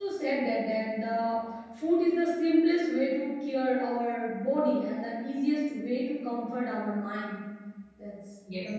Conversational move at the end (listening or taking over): taking over